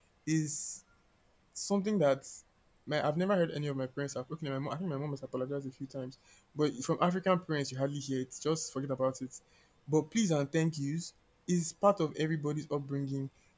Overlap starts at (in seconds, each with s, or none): none